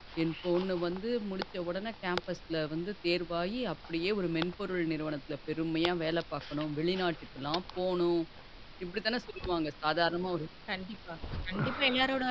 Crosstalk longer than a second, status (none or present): none